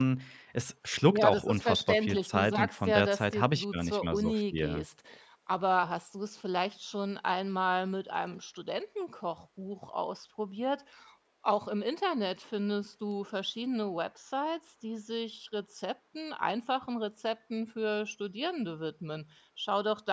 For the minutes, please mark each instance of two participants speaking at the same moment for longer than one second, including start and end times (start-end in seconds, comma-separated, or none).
1.1-4.8